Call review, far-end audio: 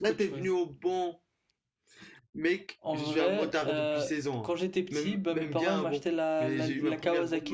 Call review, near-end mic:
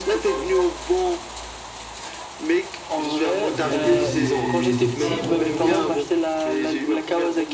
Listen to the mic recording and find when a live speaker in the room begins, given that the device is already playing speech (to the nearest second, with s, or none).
4 s